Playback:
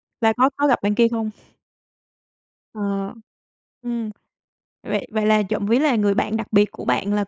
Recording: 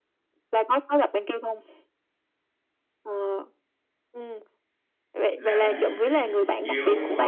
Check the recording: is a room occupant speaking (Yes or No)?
Yes